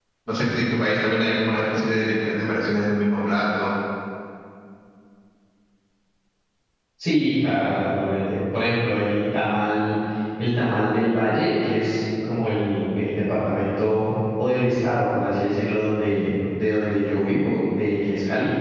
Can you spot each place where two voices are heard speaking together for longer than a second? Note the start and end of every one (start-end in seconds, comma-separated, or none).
none